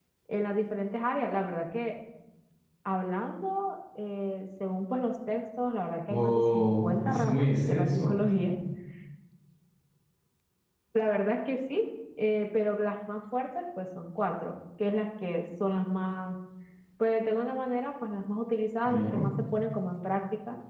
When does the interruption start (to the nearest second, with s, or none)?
6 s